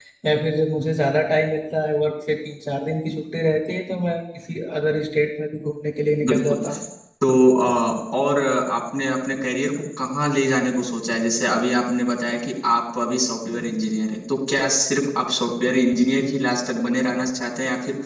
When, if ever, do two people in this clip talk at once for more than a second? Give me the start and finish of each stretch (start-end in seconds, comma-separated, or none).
none